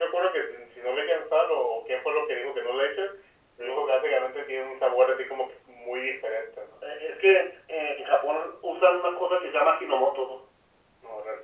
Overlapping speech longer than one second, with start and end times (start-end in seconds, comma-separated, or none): none